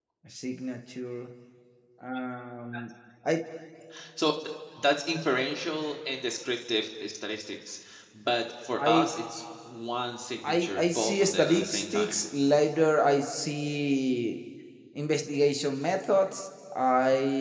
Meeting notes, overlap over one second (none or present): present